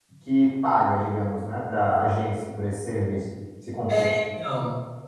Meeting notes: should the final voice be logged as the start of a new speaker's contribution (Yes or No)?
Yes